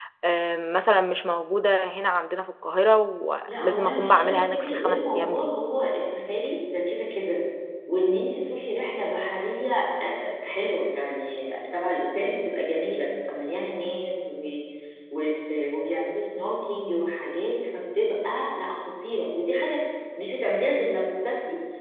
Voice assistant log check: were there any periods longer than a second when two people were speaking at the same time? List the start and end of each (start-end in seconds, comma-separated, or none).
3.5-5.5